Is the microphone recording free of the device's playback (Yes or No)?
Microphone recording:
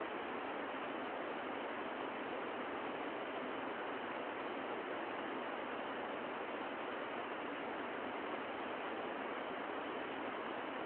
Yes